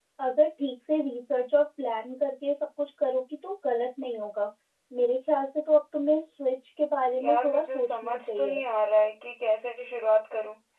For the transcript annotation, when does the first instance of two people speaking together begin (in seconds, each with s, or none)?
7.1 s